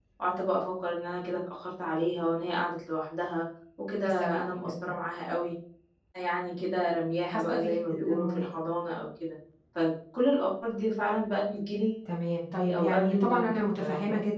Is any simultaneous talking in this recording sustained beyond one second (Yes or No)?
Yes